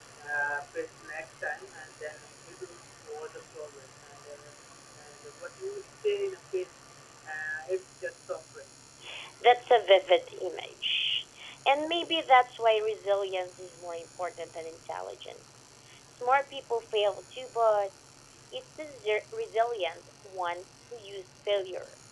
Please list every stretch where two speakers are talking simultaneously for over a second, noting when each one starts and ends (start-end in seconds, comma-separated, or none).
none